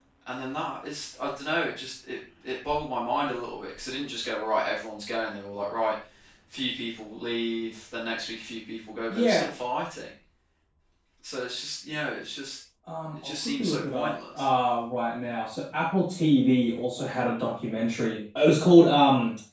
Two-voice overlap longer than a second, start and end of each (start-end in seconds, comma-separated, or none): 13.2-14.4